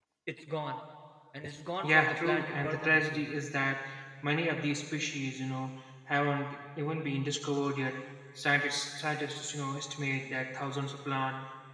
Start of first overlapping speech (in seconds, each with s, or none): 1.8 s